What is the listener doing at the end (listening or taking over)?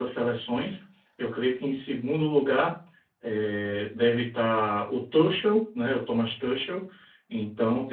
listening